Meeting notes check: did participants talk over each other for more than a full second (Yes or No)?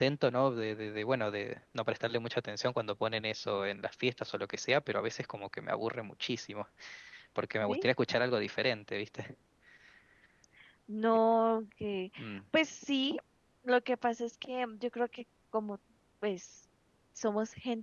No